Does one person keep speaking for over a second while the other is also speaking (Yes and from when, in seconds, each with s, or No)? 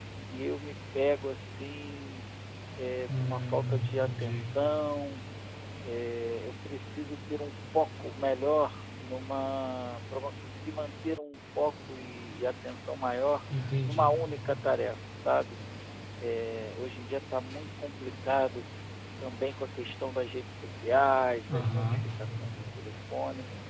Yes, from 3.2 s